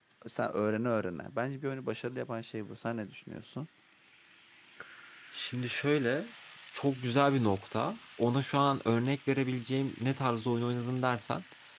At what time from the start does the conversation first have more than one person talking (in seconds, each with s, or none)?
none